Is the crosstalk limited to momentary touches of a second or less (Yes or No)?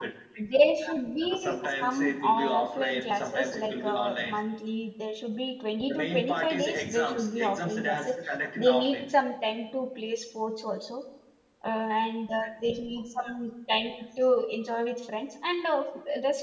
No